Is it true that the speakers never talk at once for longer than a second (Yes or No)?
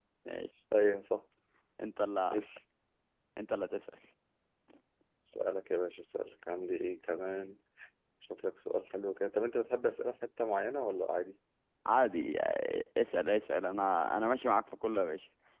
Yes